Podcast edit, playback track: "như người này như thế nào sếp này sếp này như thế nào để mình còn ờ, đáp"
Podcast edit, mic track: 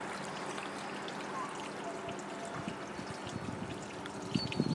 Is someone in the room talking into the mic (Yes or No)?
No